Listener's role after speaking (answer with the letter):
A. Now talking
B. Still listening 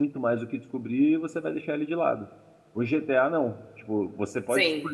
B